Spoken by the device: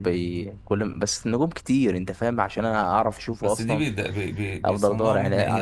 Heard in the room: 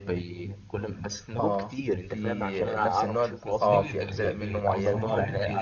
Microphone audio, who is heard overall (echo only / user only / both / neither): both